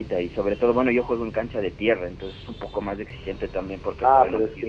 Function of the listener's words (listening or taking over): taking over